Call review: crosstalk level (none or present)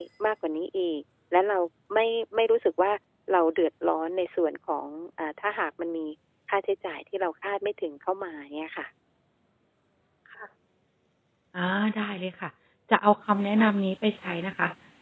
none